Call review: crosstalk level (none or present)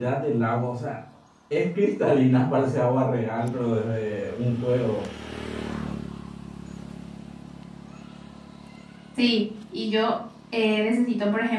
none